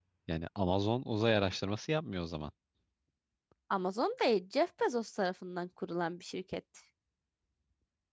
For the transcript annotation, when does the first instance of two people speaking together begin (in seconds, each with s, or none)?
none